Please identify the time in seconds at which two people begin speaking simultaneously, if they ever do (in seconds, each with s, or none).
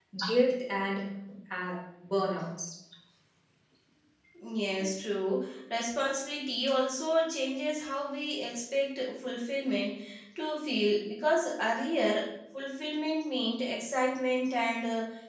none